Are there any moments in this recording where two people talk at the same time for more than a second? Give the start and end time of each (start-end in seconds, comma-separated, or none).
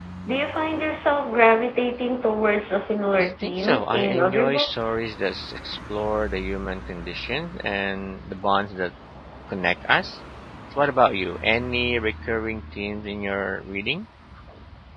3.2-4.9